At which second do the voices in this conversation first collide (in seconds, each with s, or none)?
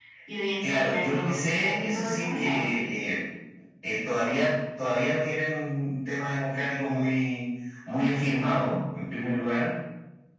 0.6 s